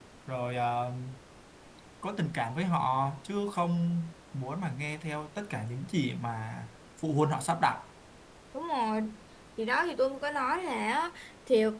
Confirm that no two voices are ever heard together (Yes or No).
Yes